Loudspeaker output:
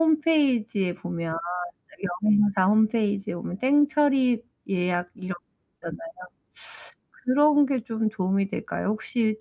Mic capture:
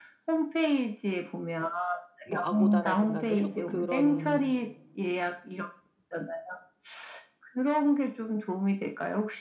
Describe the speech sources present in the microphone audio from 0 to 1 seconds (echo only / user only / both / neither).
echo only